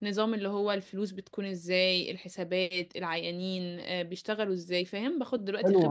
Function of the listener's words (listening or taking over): taking over